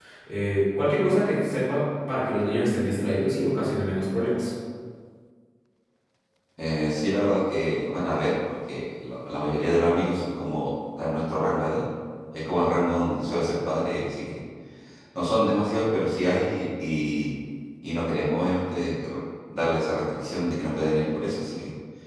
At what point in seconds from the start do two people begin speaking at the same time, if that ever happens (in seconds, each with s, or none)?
none